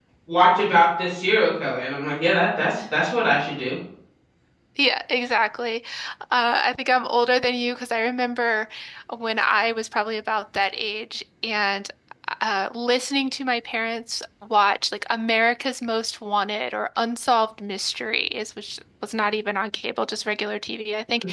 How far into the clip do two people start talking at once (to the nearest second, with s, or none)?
none